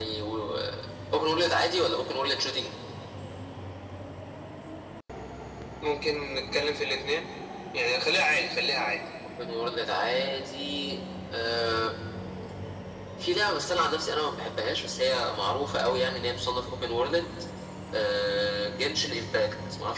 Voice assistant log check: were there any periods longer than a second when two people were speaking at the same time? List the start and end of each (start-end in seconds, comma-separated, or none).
none